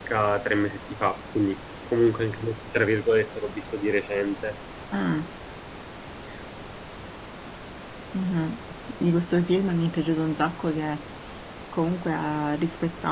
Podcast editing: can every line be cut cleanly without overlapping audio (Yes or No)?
Yes